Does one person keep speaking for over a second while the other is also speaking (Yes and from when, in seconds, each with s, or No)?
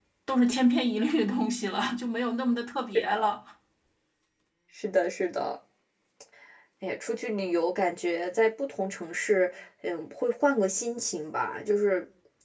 No